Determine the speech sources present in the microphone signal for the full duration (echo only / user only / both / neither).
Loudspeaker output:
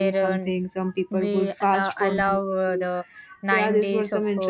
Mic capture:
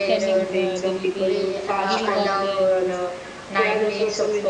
both